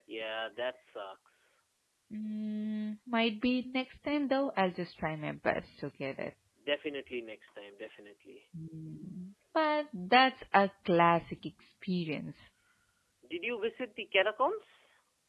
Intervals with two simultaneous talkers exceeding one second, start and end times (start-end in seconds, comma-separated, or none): none